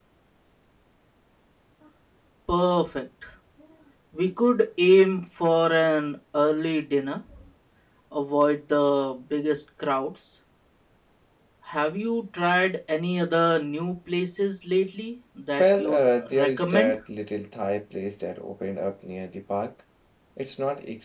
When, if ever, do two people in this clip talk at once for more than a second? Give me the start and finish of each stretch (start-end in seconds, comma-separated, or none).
15.6-16.9